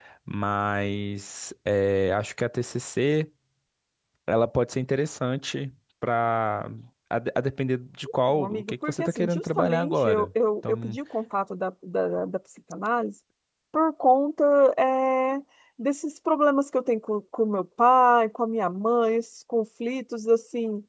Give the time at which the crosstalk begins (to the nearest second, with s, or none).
8 s